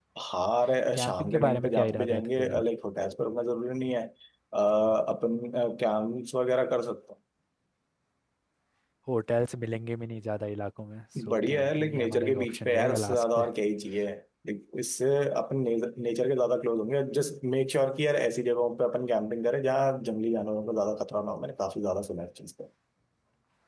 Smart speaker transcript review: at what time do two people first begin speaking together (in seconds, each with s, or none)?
0.9 s